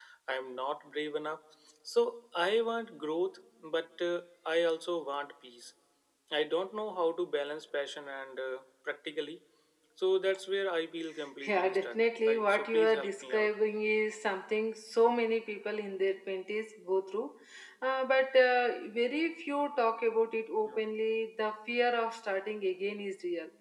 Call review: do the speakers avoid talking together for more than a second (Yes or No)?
No